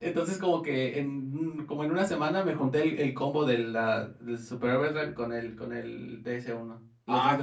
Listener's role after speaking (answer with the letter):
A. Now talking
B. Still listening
A